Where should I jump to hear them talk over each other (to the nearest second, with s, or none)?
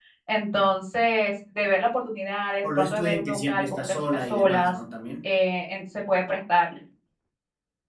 3 s